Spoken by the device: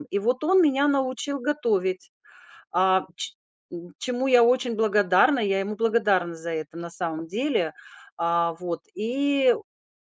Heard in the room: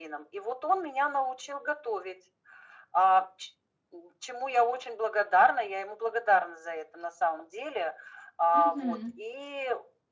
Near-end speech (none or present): present